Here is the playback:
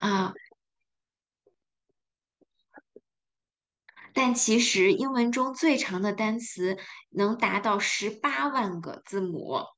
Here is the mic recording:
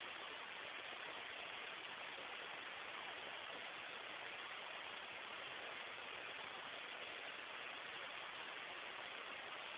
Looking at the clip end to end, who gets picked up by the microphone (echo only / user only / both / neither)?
neither